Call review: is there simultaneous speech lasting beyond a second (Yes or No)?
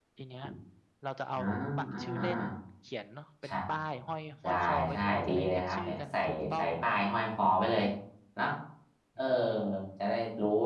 Yes